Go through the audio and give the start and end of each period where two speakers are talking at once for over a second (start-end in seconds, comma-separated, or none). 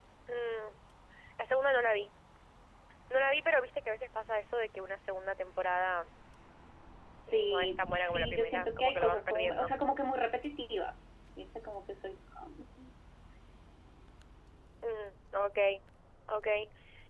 7.3-9.7